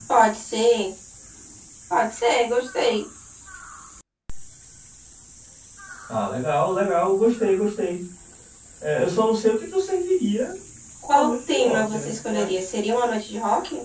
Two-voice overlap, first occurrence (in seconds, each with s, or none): 11.1 s